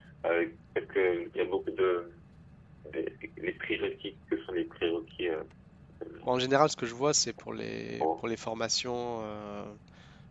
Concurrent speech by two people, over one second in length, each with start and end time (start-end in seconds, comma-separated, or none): none